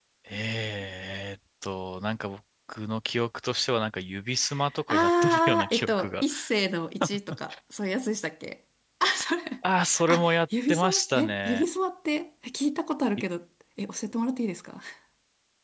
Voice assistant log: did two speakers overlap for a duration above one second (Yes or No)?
Yes